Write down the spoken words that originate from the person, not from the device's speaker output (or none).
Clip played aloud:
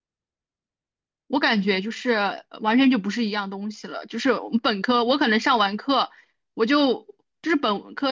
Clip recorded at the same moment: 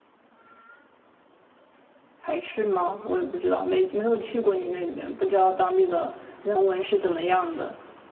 排斥吗？我也不知道，没没有去过你那边，不知道当地的人文是怎么样的。